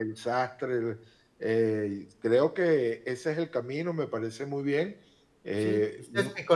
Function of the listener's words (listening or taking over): taking over